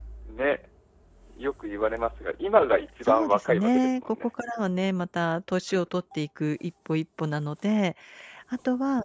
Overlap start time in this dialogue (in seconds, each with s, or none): 3.1 s